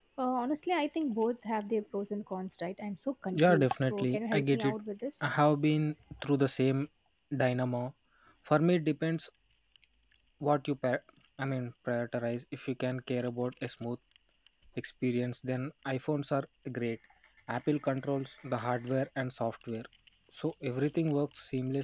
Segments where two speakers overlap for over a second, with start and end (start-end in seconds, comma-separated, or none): 3.3-4.8